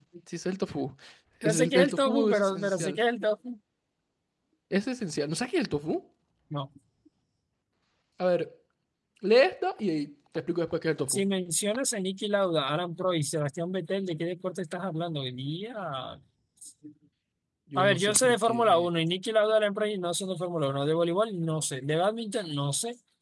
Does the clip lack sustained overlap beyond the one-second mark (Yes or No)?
No